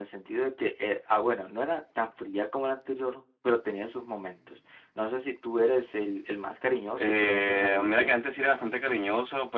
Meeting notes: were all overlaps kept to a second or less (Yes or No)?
No